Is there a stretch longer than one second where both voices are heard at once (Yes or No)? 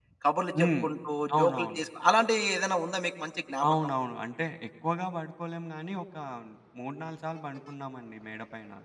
No